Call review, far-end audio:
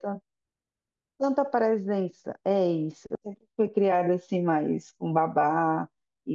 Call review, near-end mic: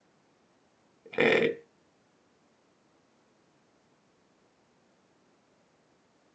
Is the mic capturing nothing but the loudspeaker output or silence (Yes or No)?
No